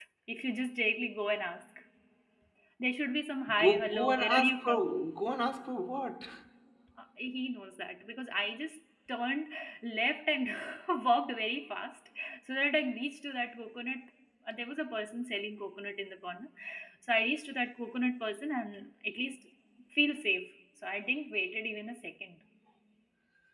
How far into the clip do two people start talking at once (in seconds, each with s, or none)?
3.6 s